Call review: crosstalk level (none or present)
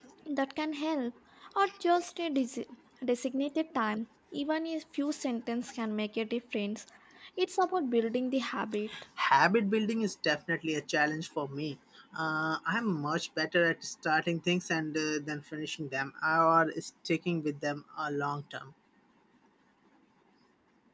none